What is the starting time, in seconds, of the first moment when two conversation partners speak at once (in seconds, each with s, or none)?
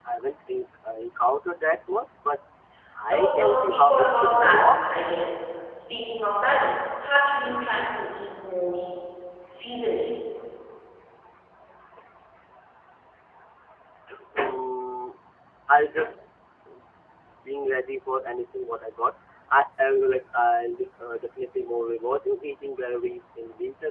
3.0 s